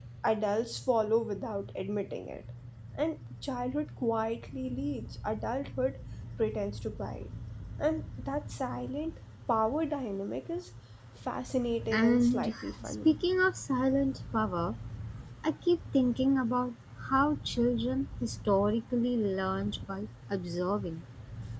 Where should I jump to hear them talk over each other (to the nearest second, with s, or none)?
12 s